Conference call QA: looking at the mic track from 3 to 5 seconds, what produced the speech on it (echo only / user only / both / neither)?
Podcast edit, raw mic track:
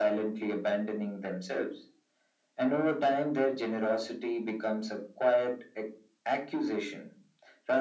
echo only